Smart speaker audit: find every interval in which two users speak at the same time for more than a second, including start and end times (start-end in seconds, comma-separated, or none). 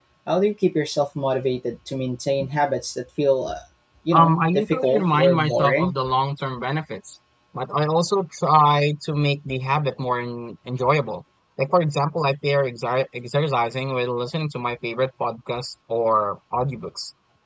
4.1-5.9